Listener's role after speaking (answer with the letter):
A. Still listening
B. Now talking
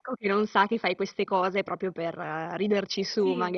B